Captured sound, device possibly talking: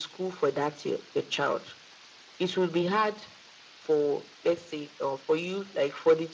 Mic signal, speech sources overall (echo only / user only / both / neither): echo only